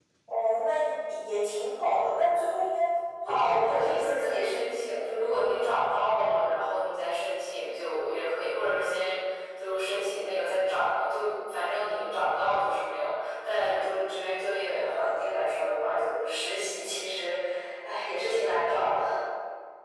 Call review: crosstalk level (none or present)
present